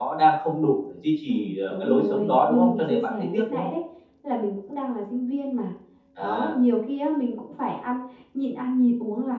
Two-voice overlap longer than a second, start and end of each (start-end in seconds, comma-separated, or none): 1.3-3.7